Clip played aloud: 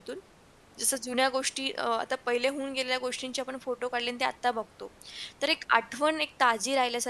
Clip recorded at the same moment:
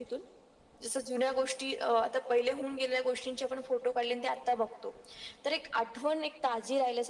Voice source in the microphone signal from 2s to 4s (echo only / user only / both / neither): echo only